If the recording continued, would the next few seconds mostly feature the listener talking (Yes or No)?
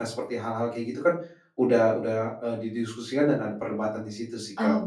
Yes